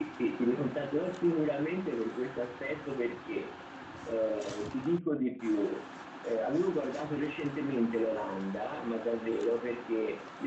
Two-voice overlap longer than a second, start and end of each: none

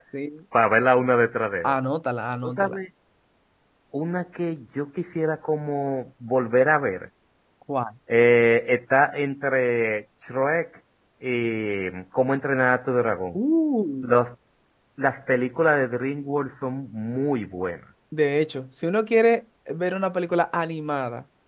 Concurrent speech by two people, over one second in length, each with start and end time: none

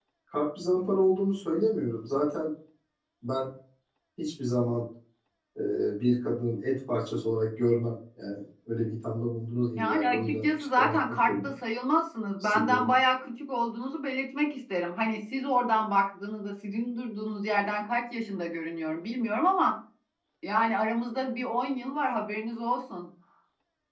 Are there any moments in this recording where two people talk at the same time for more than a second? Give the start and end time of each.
9.8-11.5

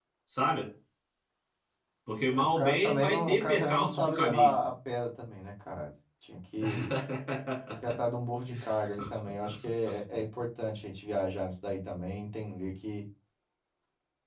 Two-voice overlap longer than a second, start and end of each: 2.4-4.5

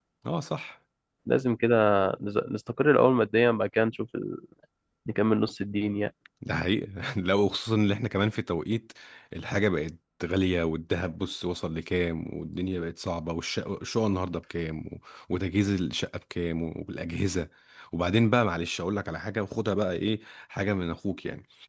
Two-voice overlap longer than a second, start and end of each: none

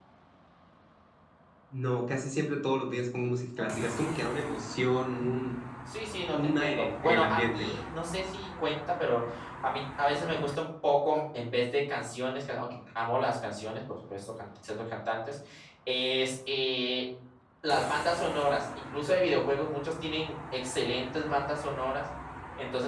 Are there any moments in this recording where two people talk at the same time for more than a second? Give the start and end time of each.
6.3-7.7

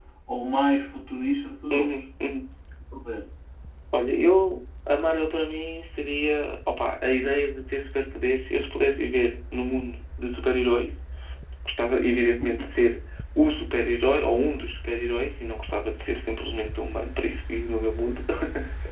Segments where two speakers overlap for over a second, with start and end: none

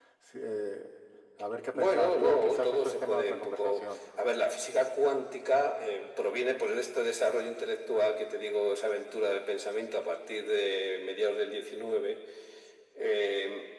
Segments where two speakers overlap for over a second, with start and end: 1.7-3.8

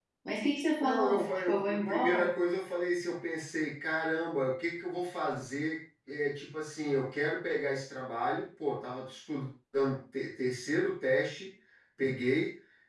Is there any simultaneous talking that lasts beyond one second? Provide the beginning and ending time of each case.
0.8-2.3

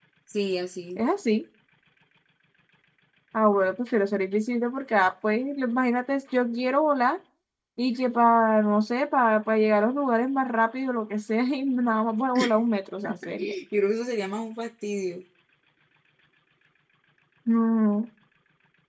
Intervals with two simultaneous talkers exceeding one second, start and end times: none

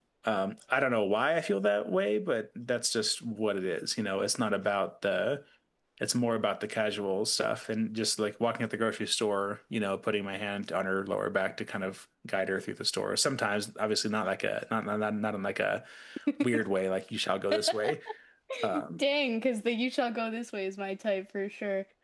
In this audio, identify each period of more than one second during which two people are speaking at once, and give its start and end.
none

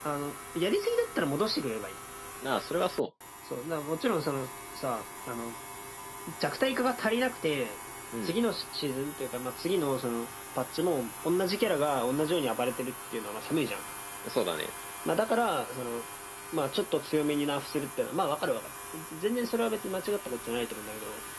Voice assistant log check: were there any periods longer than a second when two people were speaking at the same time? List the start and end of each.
none

